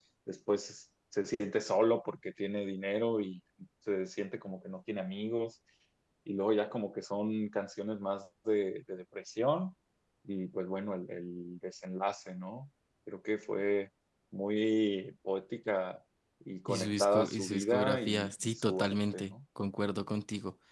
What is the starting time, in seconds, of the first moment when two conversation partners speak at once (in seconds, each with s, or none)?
16.7 s